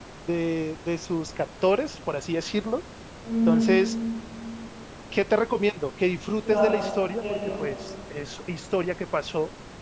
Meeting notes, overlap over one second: present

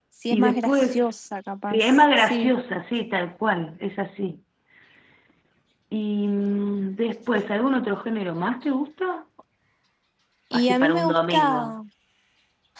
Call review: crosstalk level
present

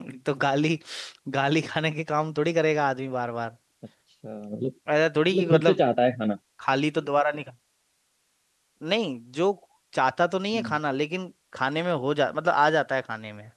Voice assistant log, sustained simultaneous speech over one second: none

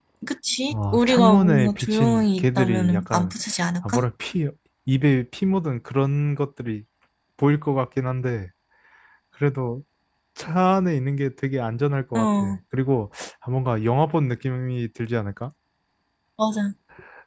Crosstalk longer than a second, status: present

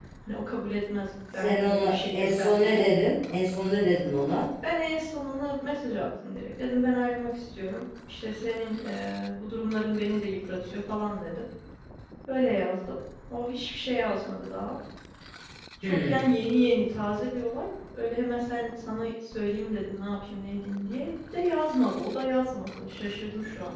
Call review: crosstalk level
present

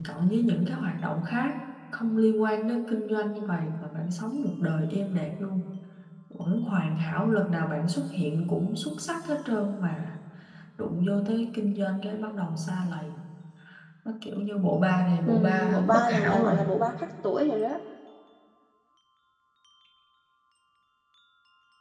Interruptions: present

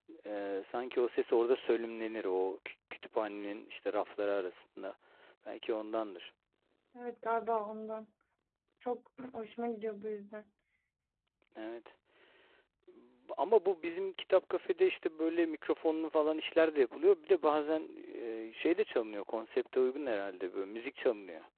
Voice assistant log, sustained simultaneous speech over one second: none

